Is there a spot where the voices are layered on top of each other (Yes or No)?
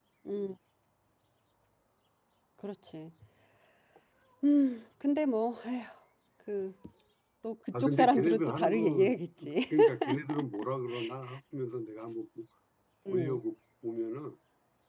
Yes